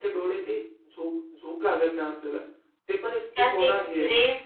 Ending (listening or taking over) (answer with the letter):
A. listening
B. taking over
B